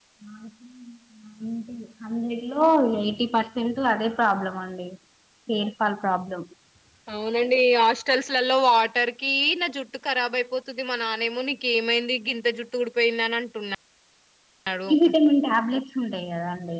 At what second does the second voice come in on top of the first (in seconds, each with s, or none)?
none